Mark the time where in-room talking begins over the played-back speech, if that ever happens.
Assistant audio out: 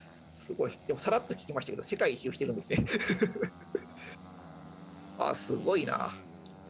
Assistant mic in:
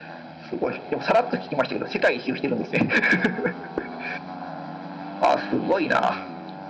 none

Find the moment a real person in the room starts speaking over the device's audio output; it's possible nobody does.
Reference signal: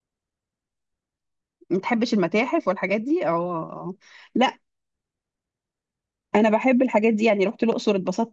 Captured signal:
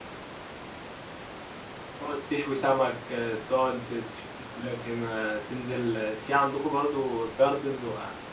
2.0 s

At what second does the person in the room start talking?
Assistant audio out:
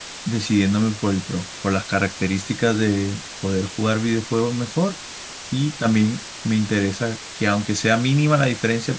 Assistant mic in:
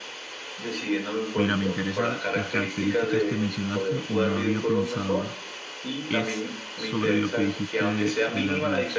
1.3 s

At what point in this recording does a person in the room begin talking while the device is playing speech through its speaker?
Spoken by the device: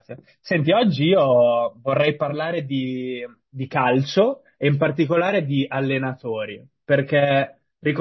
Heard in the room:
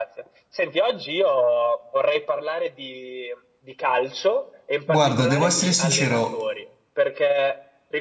4.9 s

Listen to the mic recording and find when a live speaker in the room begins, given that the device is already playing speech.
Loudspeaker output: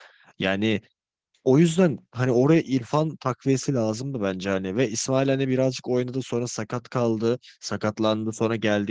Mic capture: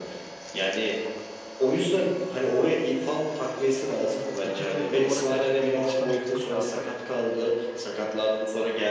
4.4 s

